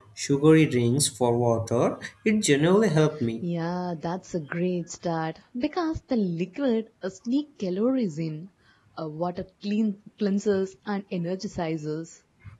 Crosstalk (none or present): none